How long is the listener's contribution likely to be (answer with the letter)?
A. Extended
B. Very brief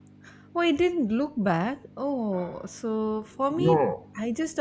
B